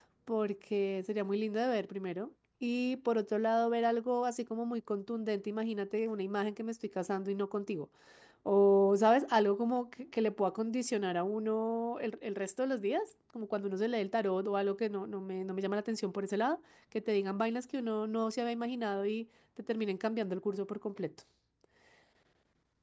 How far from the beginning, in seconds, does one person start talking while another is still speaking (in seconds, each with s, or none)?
none